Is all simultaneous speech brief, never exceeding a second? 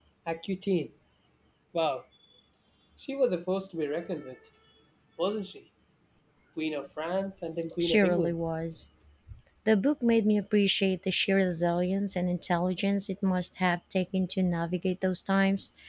Yes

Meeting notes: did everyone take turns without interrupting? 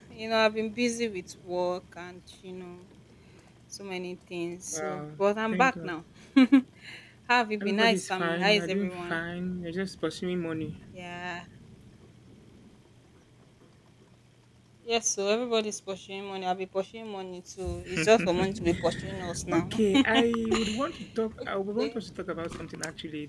No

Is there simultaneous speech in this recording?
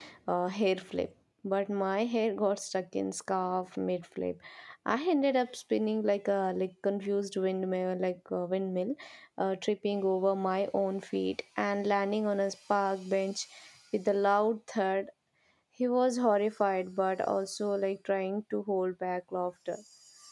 No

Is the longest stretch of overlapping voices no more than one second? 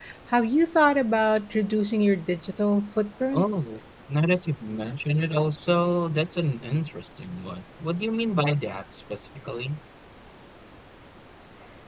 Yes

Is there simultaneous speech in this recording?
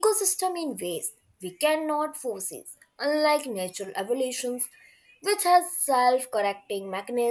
No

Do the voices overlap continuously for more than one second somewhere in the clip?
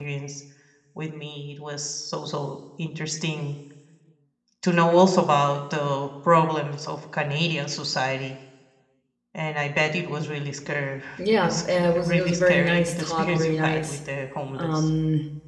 Yes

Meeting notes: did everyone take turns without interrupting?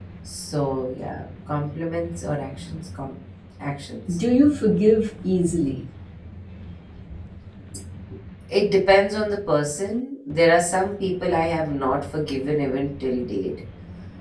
Yes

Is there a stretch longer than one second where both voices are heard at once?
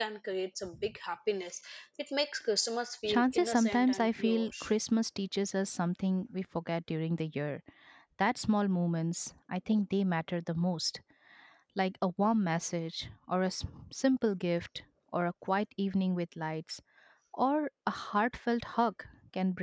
Yes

